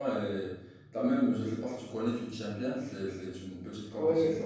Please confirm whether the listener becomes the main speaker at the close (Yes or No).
Yes